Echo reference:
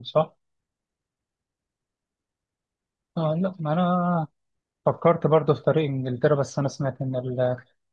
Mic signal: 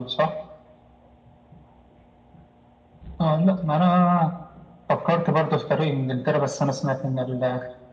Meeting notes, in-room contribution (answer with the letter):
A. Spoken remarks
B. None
B